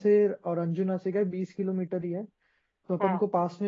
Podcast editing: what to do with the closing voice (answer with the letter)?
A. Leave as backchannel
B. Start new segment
A